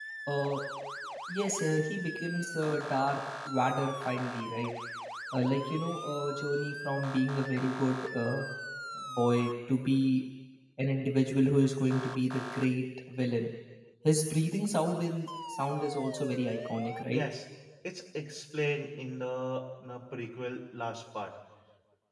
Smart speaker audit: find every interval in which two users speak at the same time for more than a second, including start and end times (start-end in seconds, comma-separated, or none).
none